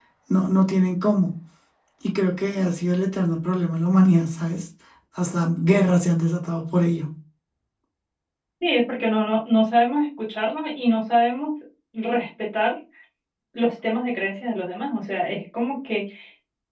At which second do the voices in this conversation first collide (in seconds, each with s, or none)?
none